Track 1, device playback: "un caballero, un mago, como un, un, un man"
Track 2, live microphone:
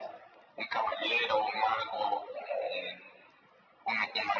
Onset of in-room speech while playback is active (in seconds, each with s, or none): none